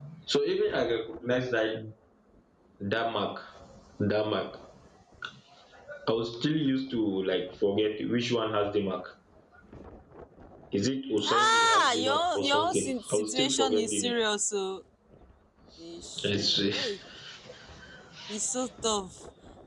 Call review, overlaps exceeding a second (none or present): present